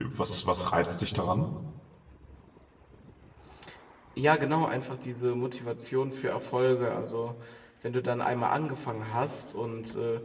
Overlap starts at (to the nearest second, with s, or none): none